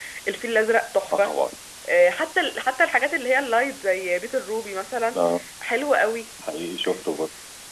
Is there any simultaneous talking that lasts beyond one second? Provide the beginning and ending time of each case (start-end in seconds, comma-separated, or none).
none